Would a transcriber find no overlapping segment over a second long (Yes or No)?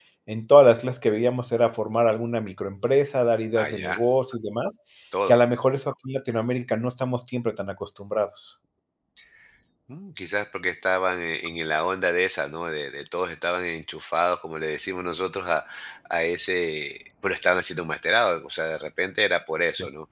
Yes